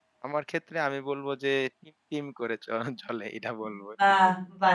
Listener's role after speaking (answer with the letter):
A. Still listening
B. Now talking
B